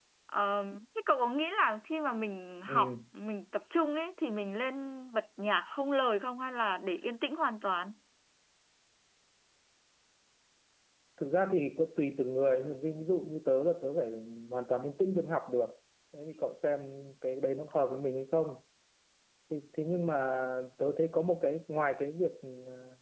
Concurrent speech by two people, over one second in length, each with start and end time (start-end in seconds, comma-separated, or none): none